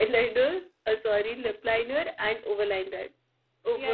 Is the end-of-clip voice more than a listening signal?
Yes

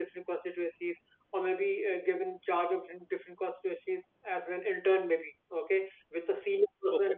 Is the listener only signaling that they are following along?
Yes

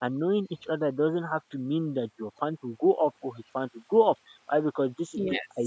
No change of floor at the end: Yes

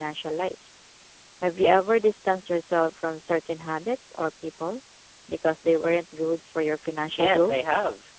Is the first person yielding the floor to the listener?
Yes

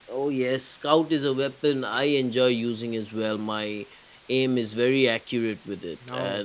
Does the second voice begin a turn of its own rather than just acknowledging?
No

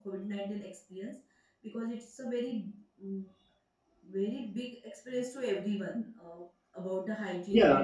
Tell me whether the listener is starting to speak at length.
Yes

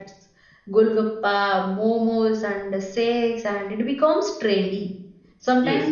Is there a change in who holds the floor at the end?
No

